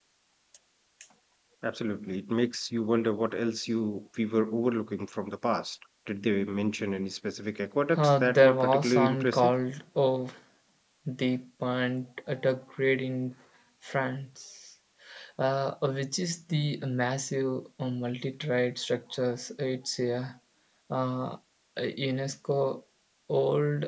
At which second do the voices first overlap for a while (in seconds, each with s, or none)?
7.9 s